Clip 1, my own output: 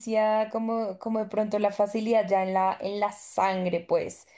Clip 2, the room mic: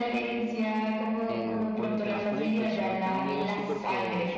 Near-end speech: present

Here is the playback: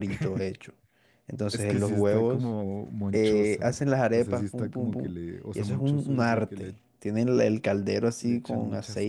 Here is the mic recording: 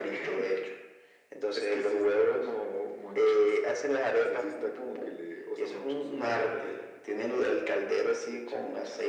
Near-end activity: none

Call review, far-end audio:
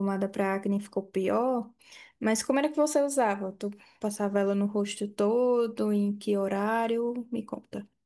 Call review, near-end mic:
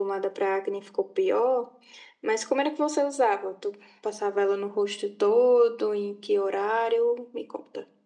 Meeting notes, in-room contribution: none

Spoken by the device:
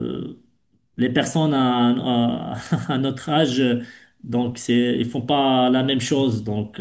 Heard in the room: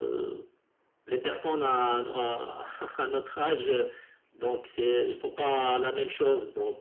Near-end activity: none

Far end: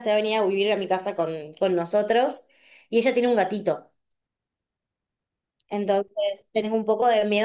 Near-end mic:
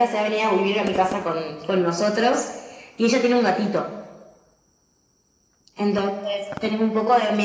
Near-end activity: none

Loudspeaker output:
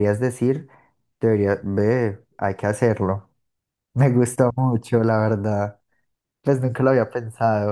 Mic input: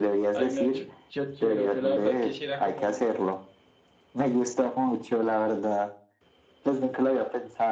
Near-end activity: present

